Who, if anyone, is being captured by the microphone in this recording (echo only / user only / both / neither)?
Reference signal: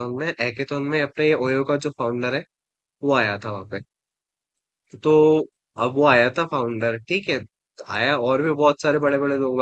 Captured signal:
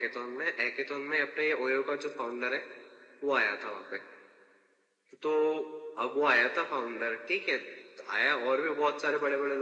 echo only